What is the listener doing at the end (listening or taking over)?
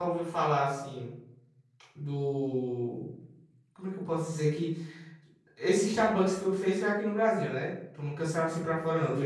taking over